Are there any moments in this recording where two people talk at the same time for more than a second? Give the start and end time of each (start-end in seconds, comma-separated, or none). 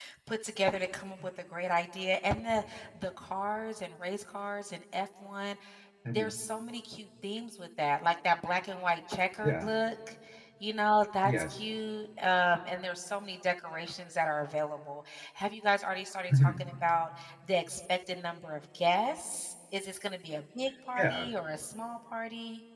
none